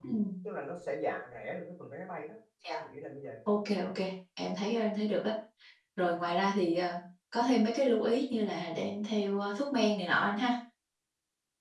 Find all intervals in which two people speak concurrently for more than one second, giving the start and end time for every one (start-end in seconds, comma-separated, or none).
none